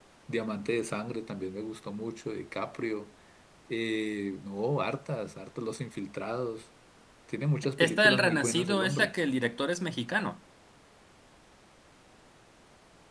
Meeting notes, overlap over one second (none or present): present